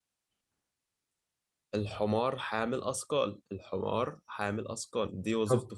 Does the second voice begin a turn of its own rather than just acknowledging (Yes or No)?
Yes